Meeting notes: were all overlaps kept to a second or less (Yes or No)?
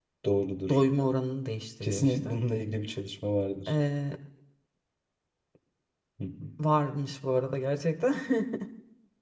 Yes